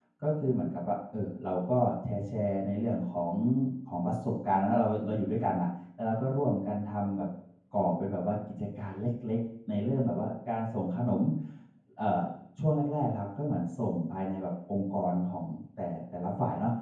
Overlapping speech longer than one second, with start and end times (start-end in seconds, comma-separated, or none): none